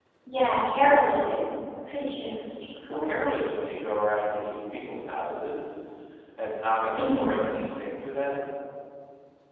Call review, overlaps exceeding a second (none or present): none